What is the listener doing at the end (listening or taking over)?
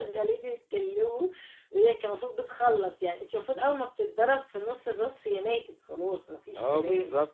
taking over